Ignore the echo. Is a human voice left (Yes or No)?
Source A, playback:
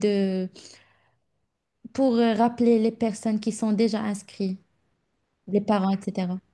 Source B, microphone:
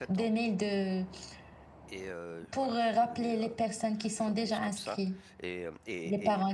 Yes